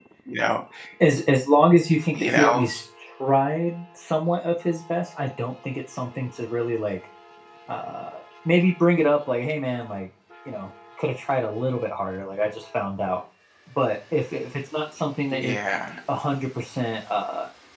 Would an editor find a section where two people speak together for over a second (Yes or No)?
No